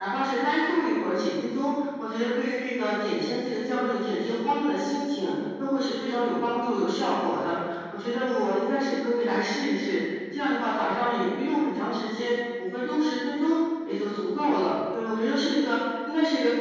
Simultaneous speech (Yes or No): No